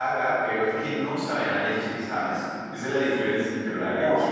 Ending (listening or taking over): taking over